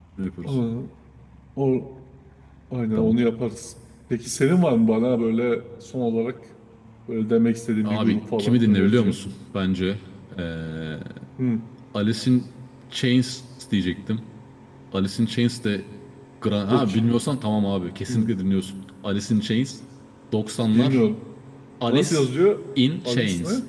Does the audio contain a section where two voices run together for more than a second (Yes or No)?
Yes